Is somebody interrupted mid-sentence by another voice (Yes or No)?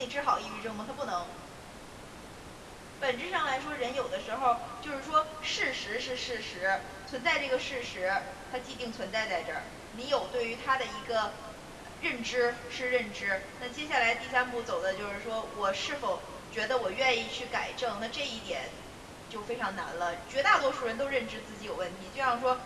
No